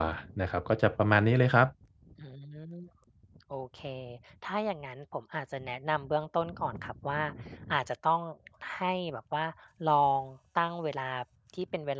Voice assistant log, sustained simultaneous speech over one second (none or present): none